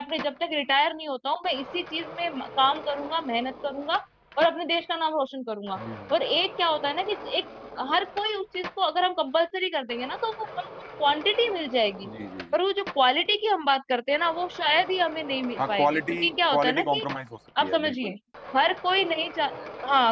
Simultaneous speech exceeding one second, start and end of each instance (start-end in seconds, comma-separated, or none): 15.6-17.1